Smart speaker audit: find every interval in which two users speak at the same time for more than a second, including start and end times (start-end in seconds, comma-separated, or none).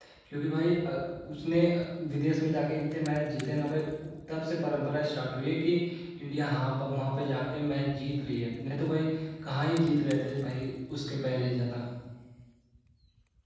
none